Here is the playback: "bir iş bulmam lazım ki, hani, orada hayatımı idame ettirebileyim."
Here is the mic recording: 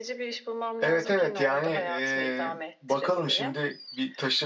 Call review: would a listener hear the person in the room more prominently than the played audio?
Yes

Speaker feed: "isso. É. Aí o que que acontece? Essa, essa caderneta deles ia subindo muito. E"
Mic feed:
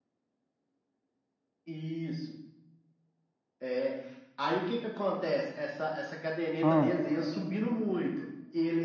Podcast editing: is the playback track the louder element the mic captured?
No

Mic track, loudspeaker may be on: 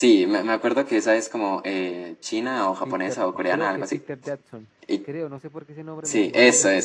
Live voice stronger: No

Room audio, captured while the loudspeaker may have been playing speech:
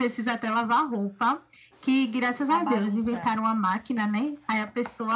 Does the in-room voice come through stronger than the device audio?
No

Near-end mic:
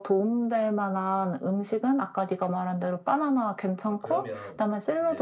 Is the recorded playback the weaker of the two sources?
No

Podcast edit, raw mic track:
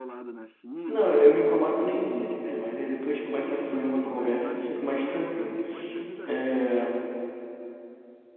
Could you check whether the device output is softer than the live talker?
Yes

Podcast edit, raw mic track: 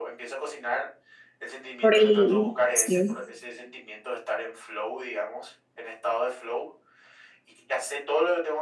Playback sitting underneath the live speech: Yes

